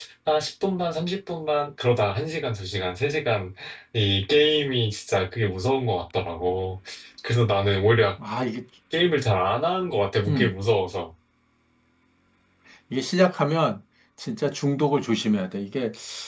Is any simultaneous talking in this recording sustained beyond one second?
No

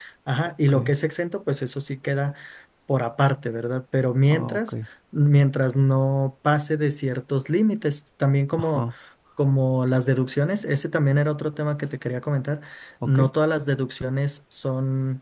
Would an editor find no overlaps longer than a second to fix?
Yes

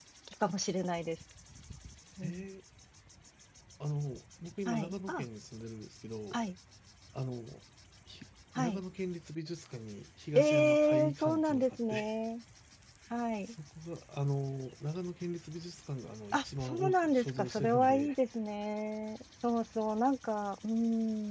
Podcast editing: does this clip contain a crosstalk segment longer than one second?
Yes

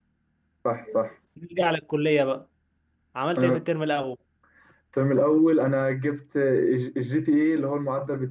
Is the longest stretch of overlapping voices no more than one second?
Yes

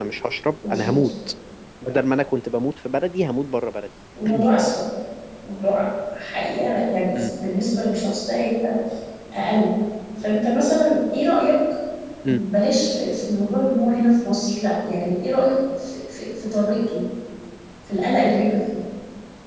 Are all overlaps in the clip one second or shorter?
Yes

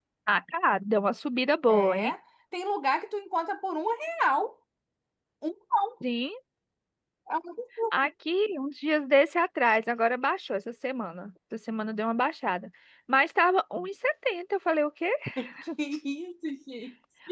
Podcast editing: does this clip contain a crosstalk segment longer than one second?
No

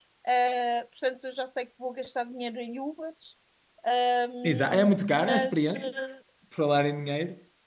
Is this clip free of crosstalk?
No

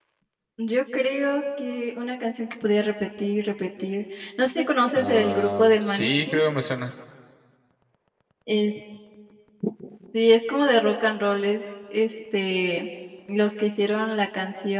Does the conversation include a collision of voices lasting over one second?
Yes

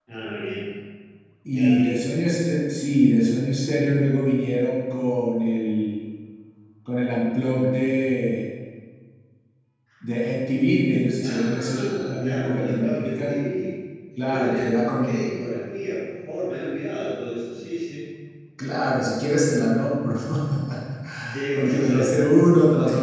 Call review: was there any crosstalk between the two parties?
Yes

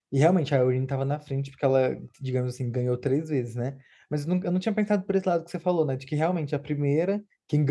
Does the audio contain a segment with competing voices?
No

